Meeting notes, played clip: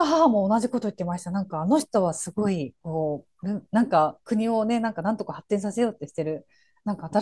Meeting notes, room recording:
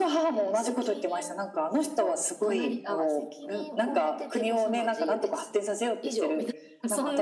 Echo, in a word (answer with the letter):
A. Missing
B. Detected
B